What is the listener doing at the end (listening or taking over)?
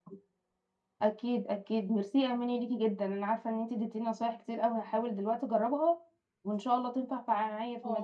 taking over